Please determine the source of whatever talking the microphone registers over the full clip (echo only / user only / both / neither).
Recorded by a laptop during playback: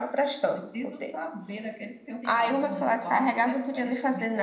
both